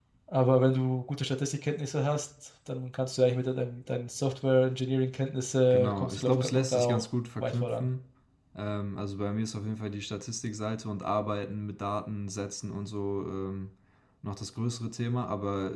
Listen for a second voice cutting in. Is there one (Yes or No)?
Yes